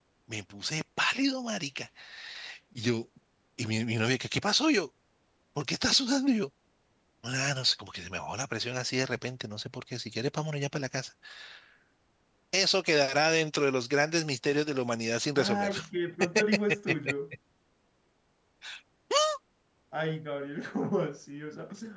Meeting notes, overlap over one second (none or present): none